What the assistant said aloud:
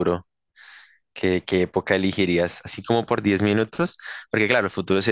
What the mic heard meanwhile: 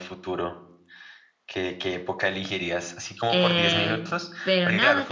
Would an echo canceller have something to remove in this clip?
Yes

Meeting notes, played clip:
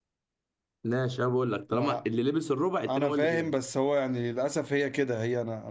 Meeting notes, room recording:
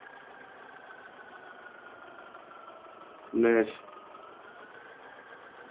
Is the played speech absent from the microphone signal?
Yes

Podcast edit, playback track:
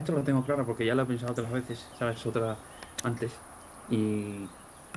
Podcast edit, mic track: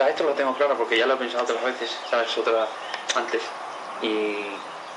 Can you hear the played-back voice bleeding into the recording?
Yes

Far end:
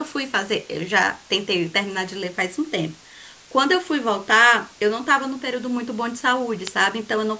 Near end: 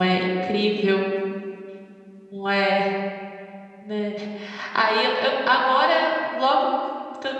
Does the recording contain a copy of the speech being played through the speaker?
No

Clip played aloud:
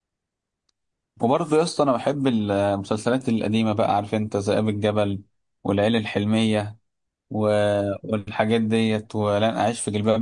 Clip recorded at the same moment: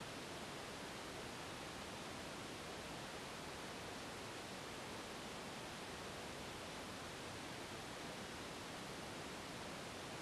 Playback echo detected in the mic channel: No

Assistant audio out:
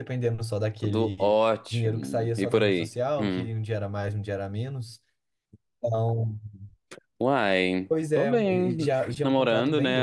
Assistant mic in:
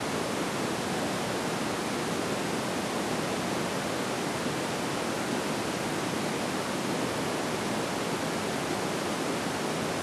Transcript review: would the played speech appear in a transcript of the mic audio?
No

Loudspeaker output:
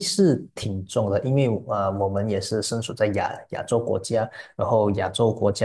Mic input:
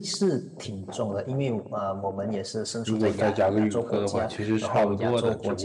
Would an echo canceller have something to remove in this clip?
Yes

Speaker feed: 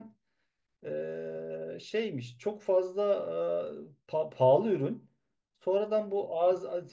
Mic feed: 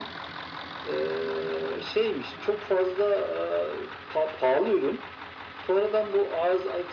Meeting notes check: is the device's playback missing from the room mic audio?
No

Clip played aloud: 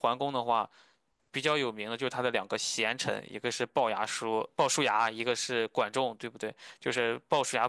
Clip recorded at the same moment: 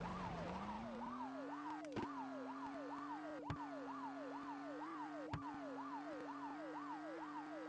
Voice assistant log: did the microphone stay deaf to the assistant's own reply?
Yes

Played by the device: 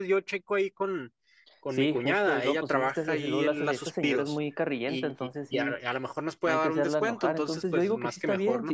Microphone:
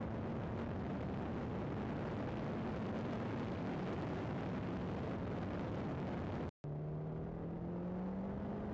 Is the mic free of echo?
Yes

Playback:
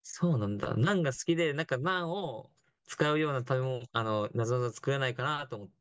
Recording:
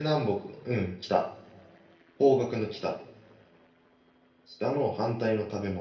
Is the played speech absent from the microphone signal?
Yes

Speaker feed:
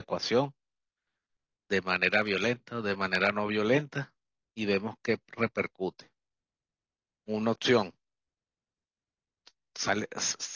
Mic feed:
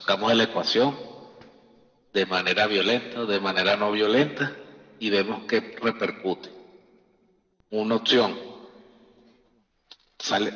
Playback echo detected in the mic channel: Yes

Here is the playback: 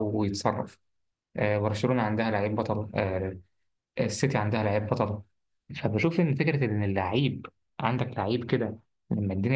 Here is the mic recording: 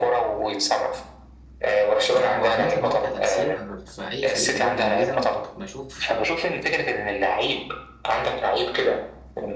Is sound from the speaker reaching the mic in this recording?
Yes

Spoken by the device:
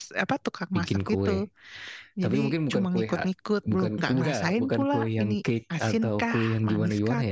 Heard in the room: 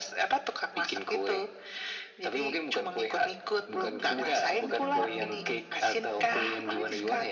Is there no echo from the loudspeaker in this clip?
No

